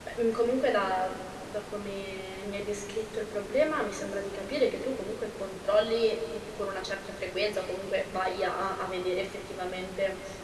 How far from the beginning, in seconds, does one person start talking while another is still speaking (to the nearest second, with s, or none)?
none